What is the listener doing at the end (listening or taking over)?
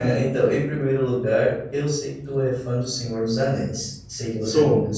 listening